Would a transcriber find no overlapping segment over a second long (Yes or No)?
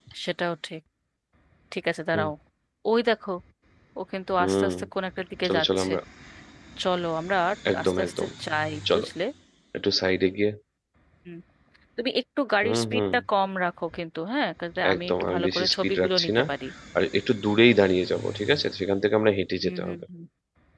No